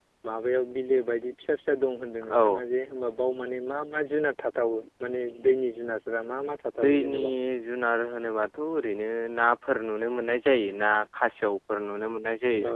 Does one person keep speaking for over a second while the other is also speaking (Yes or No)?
No